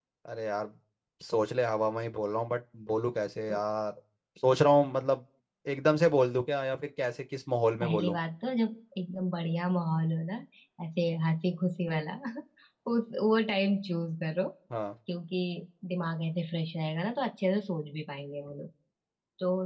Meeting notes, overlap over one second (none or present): none